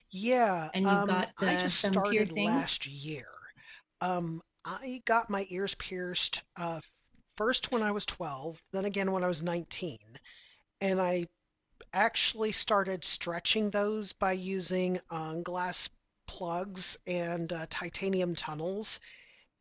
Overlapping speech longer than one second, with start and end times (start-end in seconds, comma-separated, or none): 0.8-2.7